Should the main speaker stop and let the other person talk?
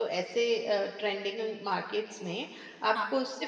No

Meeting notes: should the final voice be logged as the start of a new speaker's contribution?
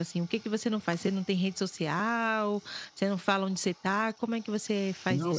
Yes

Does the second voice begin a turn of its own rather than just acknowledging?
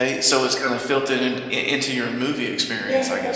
Yes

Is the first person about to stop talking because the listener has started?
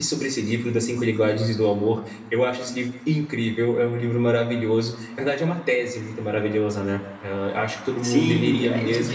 Yes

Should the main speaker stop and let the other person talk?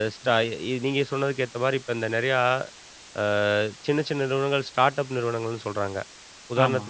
No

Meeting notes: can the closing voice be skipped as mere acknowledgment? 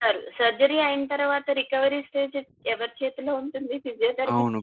No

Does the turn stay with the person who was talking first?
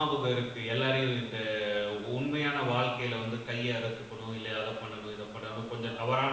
Yes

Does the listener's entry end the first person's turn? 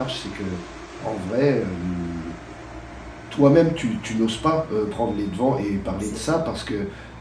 No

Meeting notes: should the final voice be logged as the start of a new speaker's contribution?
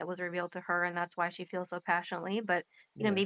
No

